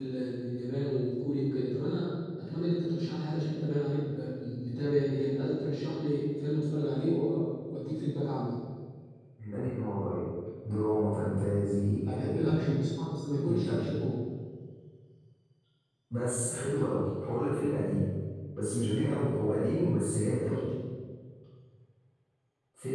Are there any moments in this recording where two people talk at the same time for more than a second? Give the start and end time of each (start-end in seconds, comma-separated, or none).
none